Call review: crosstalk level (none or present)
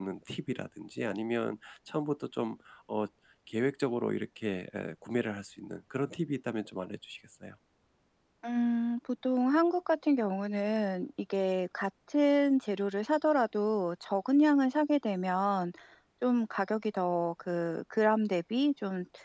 none